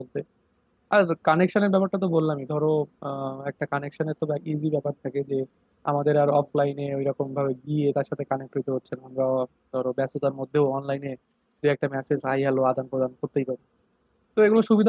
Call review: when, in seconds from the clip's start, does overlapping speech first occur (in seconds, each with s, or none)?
none